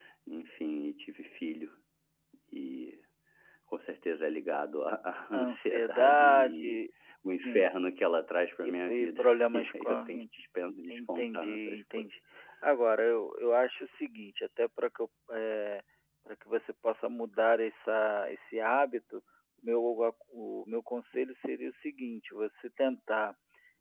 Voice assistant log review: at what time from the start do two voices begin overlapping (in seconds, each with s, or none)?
5.3 s